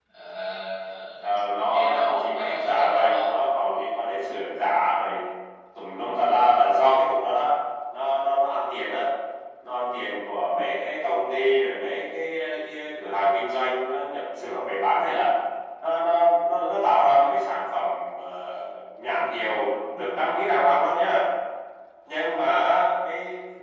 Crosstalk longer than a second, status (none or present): present